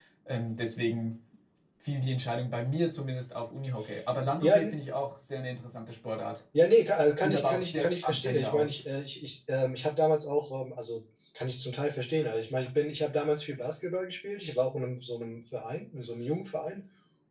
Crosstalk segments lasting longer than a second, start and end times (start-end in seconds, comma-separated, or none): 7.2-8.7